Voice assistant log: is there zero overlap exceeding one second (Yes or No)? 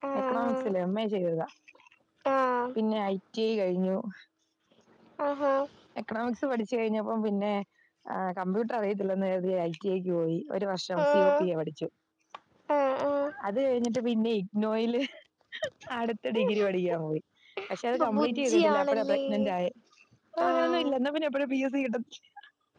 No